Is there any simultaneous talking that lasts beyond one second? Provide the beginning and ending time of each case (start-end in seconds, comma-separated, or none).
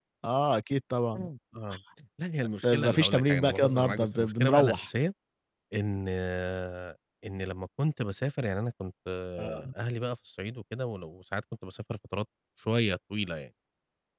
2.6-4.9